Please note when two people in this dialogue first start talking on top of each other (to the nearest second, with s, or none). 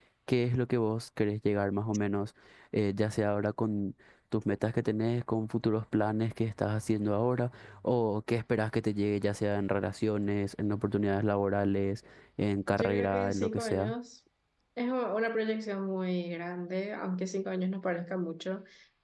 13 s